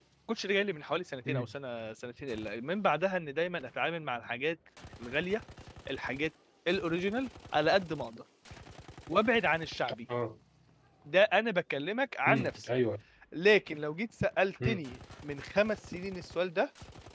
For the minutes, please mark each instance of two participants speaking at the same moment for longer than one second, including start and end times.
none

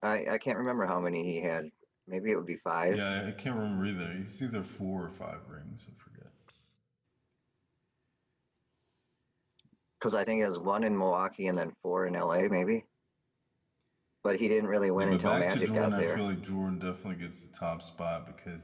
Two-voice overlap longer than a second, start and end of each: 14.9-16.2

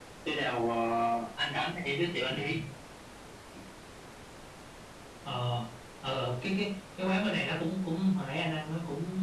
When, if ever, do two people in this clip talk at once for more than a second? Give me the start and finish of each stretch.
none

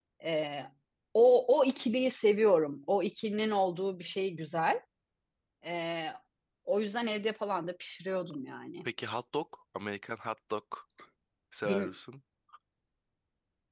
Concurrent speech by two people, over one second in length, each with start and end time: none

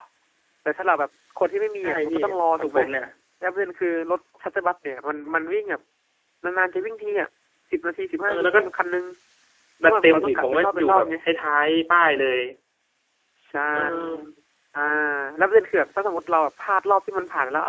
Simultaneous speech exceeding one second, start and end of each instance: 9.8-11.1

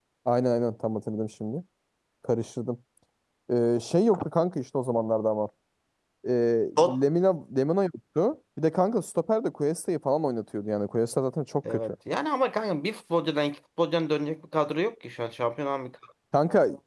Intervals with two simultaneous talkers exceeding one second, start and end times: none

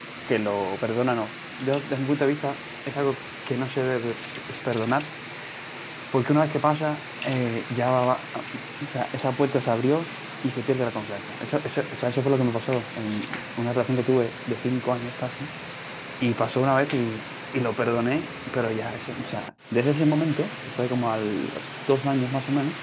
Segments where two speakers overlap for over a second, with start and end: none

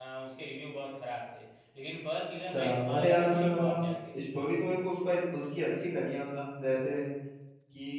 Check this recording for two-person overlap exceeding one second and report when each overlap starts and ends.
2.5-3.9

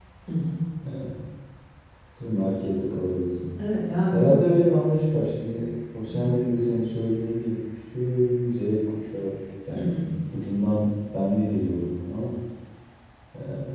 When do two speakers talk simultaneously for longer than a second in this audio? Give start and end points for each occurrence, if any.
none

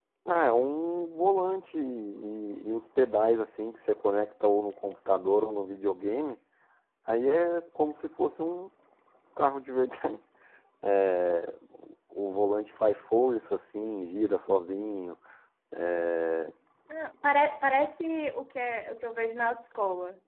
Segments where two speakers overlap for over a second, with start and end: none

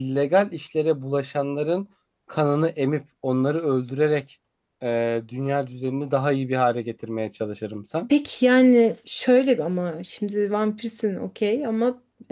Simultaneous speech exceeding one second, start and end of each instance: none

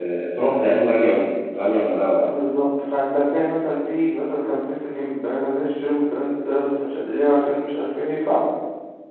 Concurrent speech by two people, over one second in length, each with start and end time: none

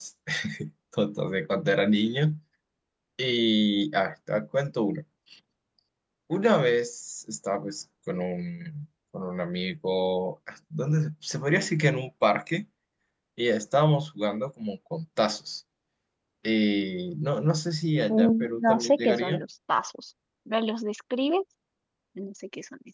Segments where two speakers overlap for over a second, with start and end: 18.1-19.4

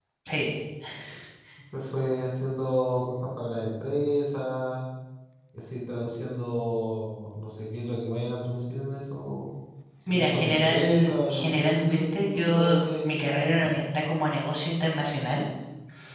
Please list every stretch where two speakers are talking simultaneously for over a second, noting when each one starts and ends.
10.1-13.7

